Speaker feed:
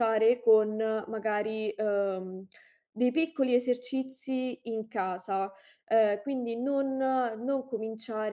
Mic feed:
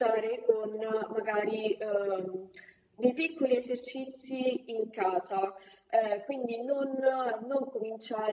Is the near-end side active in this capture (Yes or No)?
No